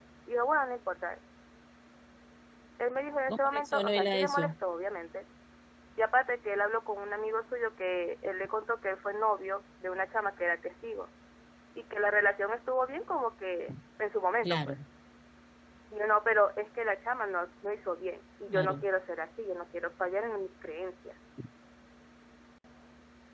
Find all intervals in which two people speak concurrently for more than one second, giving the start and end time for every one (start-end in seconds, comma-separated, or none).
3.3-4.5